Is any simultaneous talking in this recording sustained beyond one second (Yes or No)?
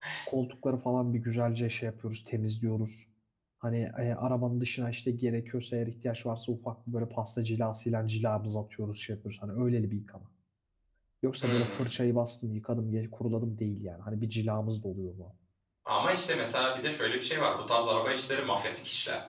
No